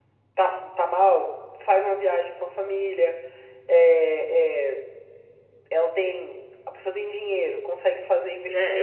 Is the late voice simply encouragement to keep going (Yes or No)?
No